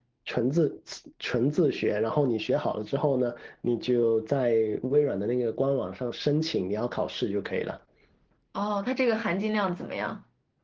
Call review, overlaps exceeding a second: none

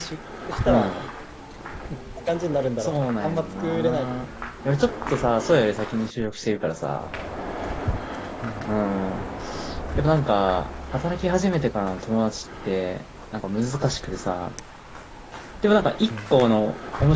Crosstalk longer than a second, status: present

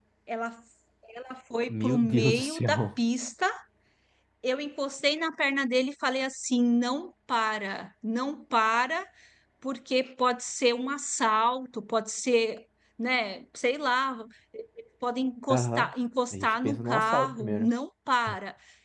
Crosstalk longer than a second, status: present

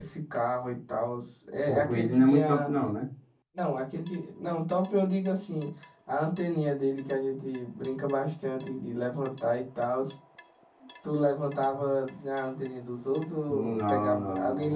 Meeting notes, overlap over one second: present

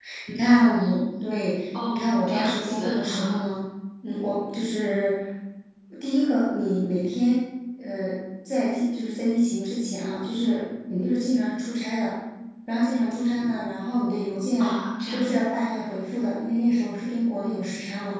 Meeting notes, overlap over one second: present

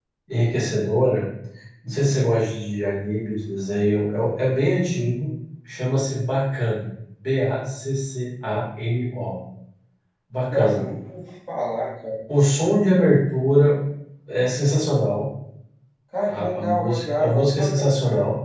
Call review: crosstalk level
present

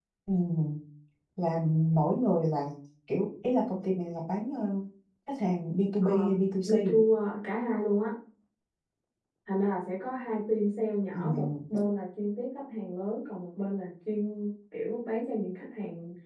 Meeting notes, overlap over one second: none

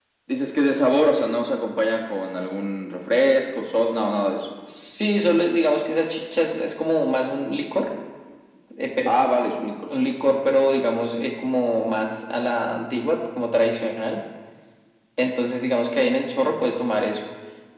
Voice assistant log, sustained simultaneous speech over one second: none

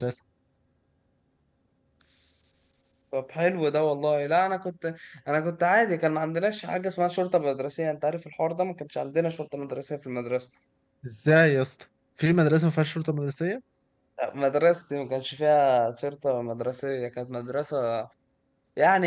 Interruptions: none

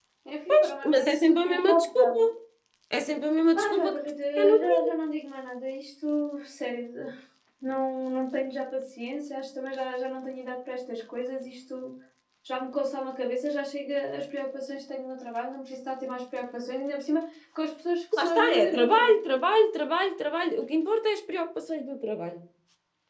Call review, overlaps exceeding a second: present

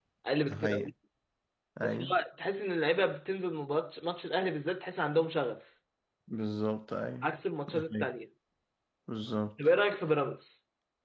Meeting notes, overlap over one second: none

